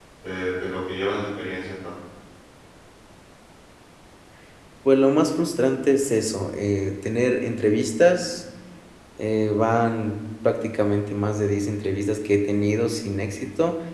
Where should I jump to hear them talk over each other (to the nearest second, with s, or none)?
none